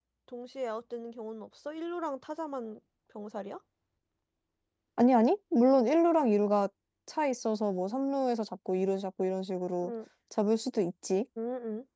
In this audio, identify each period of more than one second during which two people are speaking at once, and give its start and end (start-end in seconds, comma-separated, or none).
none